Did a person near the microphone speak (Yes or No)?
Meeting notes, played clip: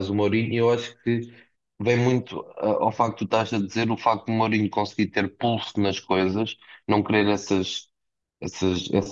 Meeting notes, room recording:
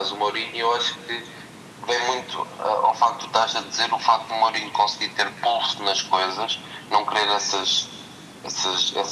No